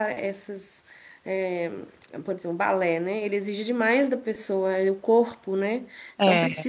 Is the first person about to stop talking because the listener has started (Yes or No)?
No